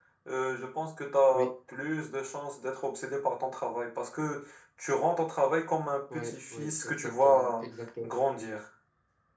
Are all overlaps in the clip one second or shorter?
No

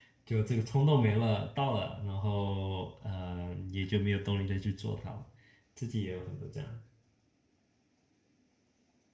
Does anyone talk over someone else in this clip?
No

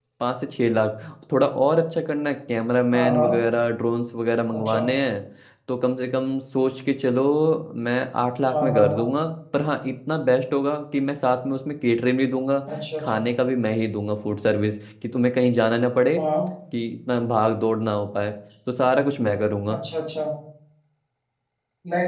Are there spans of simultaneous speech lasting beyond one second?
No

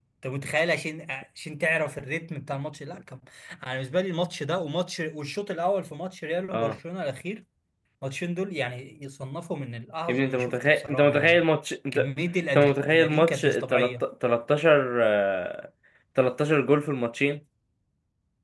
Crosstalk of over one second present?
Yes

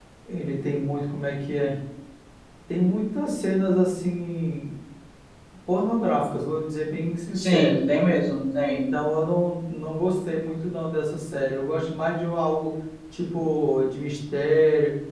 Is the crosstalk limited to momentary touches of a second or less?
Yes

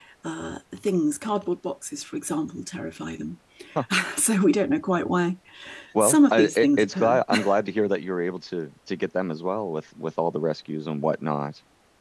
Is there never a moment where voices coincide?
No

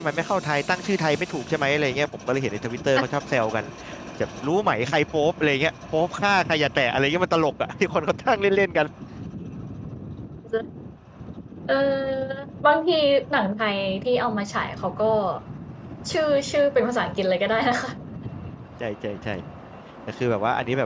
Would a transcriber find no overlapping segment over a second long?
Yes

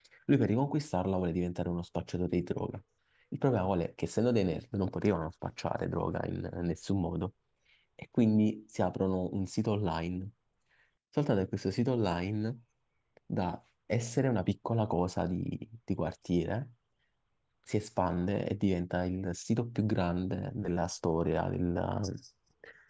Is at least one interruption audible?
No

